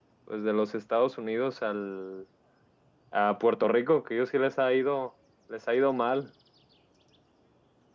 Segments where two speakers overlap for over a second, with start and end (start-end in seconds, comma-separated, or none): none